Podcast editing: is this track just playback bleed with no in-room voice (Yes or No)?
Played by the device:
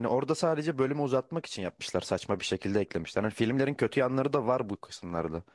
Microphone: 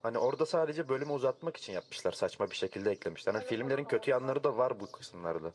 No